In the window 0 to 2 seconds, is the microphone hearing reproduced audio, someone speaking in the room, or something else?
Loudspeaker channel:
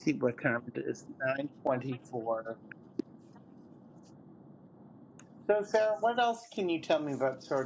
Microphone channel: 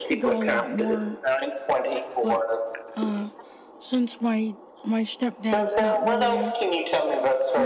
both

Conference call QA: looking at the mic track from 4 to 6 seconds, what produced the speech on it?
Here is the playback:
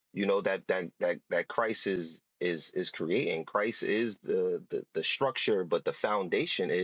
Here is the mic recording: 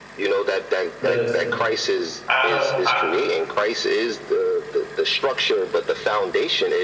echo only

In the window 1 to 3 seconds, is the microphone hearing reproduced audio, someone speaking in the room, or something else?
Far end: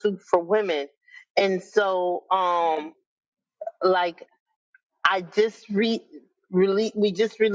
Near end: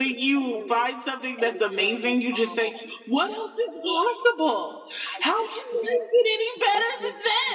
both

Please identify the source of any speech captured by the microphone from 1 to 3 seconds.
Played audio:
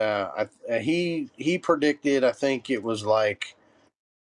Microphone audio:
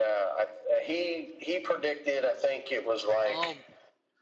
echo only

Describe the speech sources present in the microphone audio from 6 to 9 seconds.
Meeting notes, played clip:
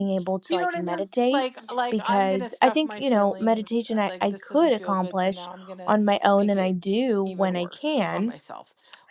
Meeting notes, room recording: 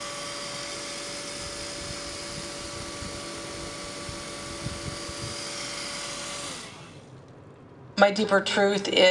user only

